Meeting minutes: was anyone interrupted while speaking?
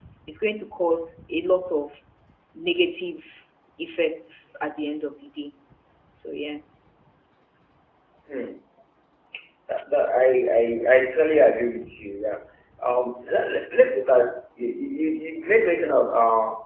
No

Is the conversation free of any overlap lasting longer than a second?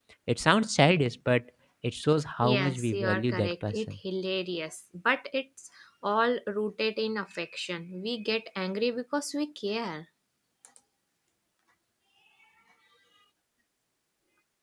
No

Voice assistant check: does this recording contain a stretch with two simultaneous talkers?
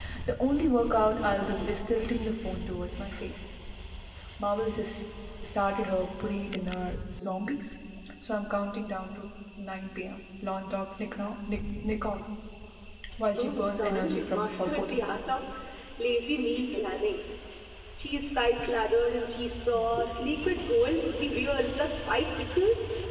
Yes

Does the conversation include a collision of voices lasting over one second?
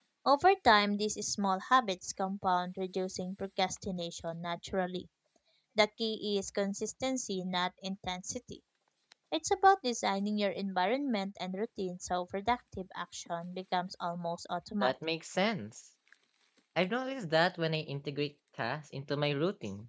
No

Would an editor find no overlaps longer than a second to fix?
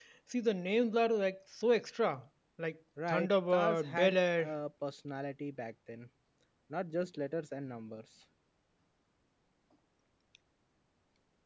No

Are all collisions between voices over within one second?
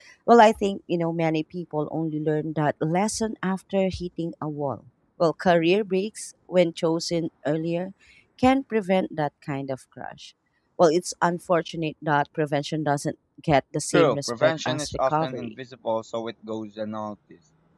No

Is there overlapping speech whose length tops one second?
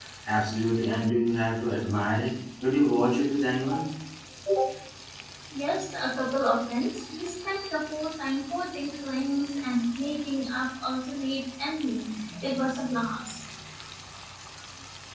No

